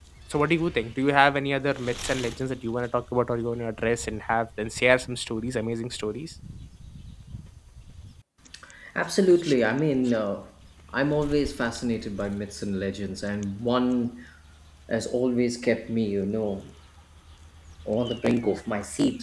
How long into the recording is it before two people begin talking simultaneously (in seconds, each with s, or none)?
none